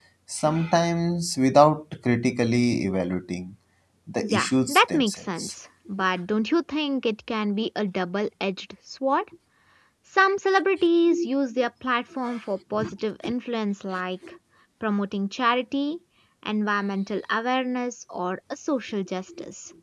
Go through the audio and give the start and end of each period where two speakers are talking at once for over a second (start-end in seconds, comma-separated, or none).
4.2-5.5